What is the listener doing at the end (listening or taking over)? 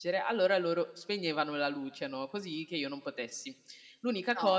listening